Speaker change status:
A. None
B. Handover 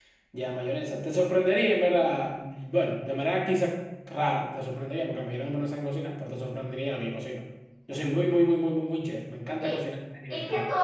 B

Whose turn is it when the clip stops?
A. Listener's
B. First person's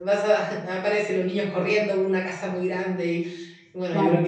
B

